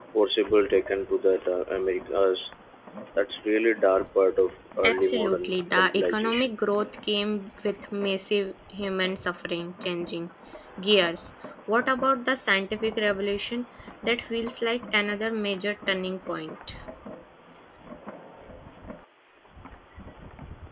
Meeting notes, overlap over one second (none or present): present